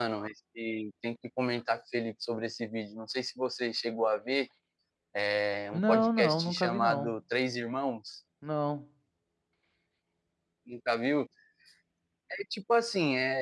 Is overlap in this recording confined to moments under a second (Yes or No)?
No